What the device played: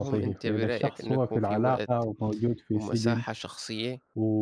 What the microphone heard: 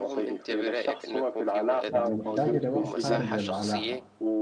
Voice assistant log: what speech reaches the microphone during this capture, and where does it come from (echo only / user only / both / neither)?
both